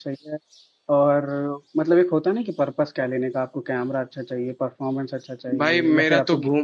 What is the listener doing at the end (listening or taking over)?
taking over